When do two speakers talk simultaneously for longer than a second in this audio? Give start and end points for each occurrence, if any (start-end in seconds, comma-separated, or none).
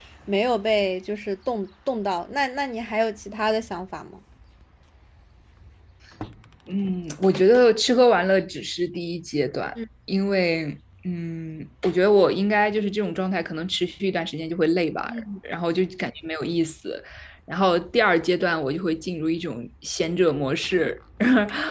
none